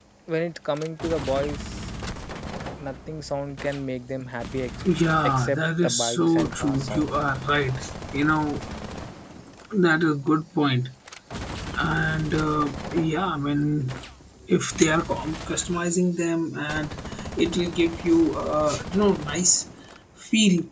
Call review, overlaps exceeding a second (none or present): present